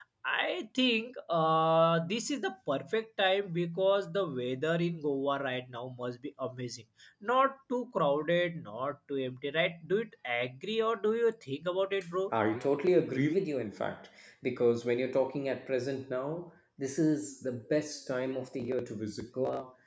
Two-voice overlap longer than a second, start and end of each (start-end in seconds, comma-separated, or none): none